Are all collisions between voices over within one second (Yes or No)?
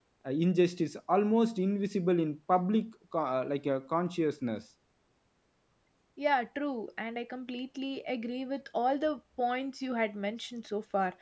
Yes